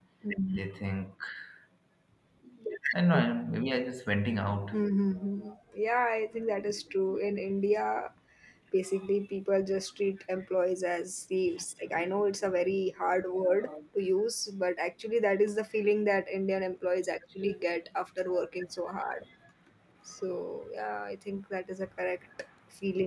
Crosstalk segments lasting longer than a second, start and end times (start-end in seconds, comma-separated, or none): none